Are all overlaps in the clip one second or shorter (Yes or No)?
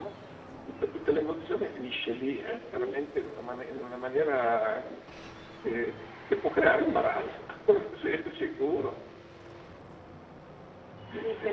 Yes